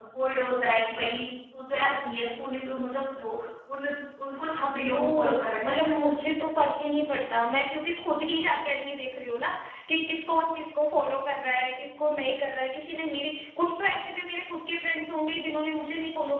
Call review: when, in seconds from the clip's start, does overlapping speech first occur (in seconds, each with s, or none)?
4.8 s